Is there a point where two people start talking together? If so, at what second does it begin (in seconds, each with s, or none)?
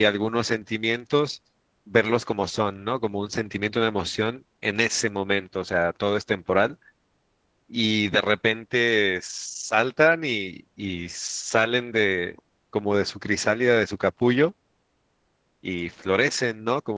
none